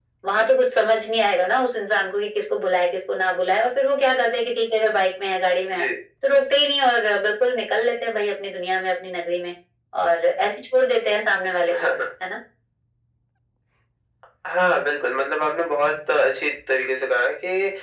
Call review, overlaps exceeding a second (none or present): none